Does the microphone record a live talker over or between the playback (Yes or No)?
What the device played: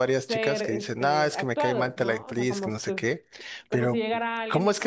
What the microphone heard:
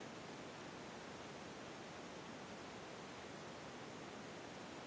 No